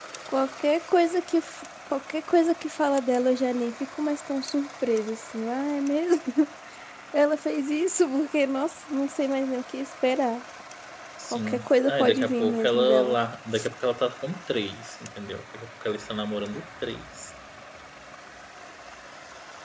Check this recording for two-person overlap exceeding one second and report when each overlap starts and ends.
11.3-13.2

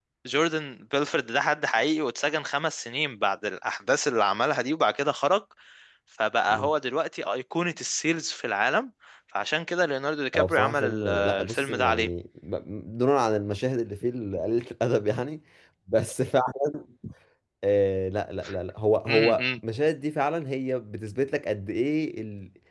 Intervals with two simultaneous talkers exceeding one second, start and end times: 10.3-12.1

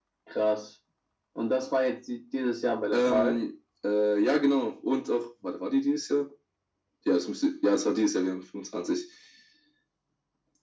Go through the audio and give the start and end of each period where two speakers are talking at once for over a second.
none

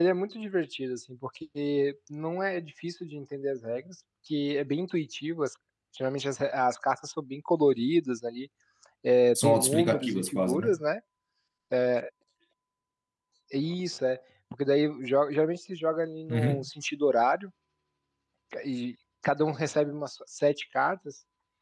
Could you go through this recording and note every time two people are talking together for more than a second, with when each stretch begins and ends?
9.4-10.8

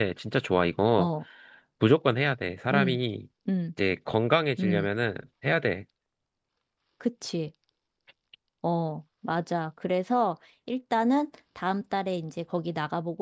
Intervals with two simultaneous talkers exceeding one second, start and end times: none

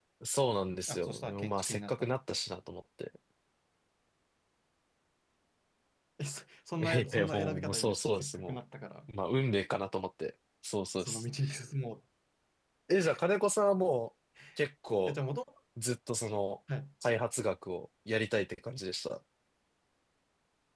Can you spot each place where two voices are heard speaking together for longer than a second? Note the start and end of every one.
0.9-2.1, 6.8-8.6

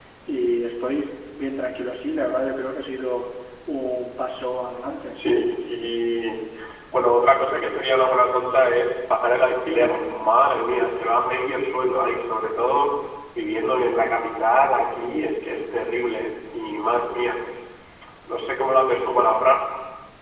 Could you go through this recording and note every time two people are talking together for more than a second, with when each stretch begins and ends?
none

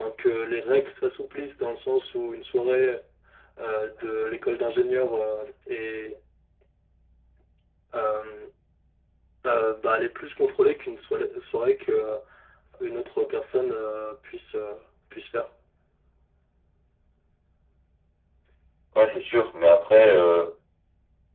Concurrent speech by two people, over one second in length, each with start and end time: none

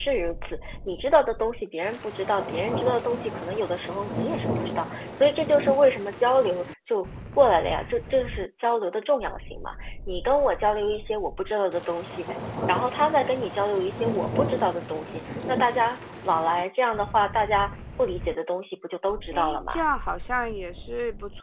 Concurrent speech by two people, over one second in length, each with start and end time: none

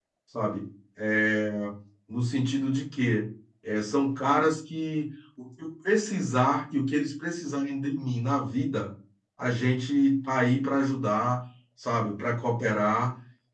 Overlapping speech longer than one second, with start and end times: none

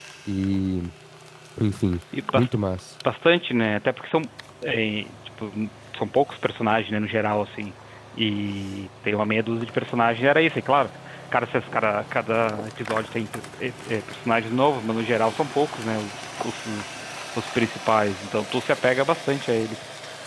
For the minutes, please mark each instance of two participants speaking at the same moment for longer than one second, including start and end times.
none

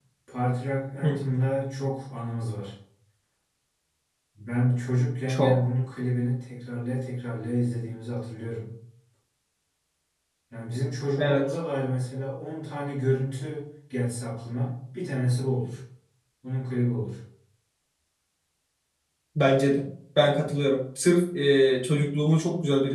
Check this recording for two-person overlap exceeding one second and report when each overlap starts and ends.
none

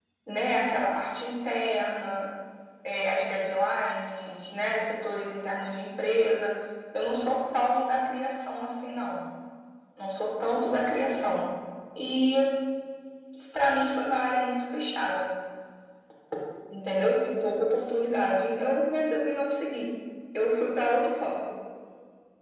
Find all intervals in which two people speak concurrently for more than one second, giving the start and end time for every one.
none

